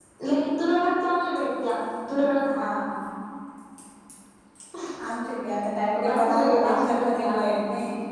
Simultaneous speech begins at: 6.0 s

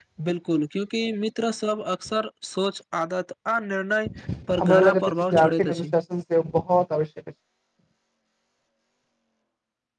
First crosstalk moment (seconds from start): 4.6 s

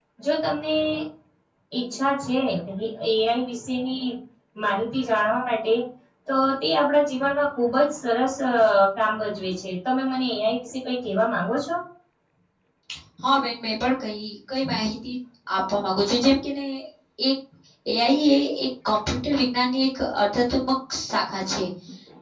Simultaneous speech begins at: none

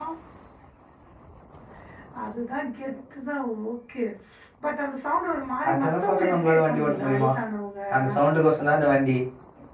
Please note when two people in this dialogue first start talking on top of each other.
5.6 s

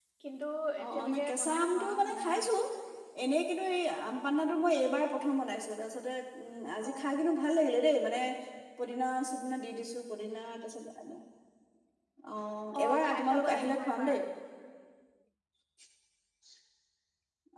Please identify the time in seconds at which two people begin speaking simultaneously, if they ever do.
0.8 s

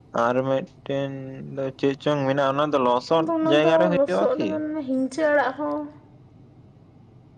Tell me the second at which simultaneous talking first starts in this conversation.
3.1 s

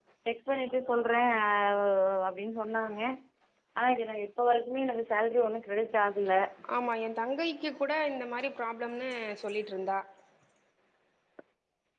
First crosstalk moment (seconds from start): none

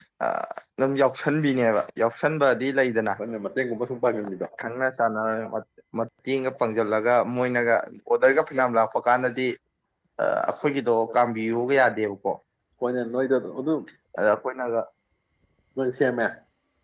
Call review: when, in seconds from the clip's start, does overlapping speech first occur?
none

